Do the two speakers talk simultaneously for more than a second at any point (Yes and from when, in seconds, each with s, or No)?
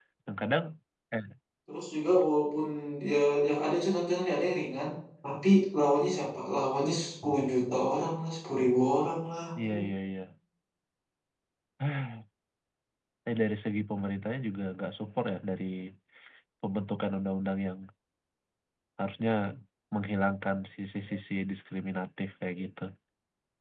No